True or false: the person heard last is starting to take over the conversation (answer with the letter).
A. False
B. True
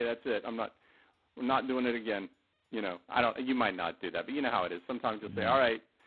A